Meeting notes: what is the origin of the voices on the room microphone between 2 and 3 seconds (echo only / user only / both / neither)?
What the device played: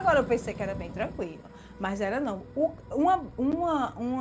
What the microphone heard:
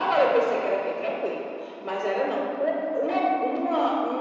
echo only